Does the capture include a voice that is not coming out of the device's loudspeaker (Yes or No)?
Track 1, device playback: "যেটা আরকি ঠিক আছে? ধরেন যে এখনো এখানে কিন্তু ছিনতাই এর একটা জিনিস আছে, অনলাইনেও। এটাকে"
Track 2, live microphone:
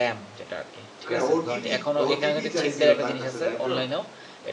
Yes